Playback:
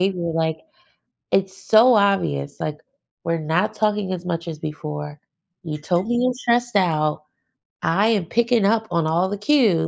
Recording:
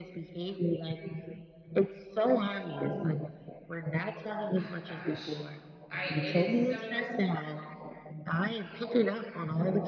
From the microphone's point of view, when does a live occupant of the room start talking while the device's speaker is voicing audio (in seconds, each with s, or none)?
4.5 s